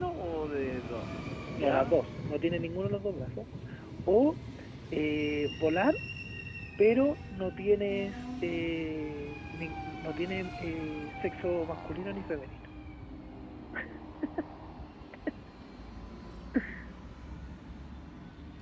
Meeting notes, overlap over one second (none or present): none